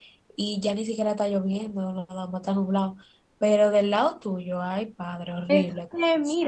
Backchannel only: No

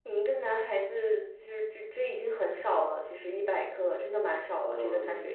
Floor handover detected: Yes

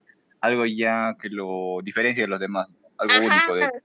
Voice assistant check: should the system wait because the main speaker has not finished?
No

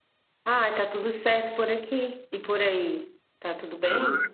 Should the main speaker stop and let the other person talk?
Yes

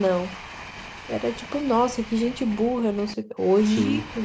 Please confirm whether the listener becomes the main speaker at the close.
No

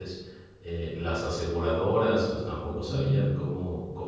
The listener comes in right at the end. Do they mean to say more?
No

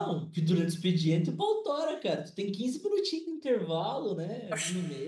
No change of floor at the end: No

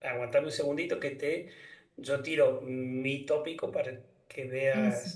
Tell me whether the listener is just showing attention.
Yes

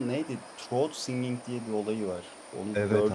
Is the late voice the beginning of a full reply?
Yes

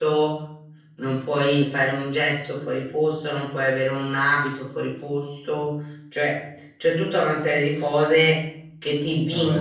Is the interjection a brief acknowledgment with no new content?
Yes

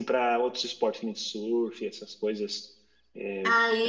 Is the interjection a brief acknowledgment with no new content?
No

